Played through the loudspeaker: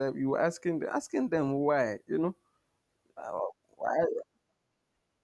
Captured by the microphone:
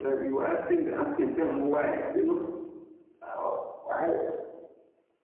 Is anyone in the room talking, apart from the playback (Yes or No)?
No